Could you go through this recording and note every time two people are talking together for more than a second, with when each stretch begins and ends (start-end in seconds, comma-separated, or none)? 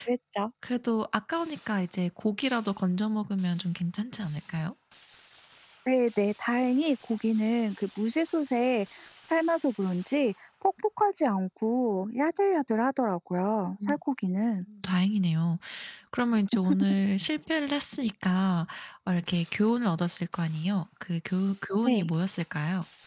none